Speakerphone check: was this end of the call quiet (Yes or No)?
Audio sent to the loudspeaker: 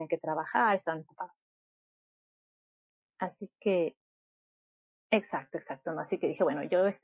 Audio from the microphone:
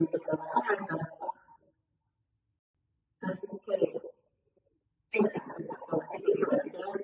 Yes